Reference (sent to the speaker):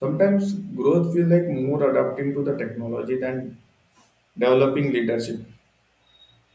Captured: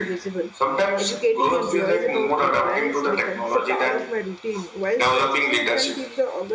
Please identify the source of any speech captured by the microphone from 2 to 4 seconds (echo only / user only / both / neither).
both